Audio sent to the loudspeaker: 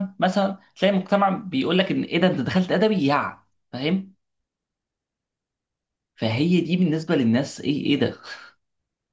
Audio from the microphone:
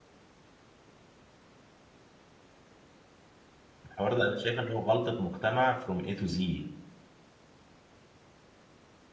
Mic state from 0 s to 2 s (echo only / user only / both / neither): neither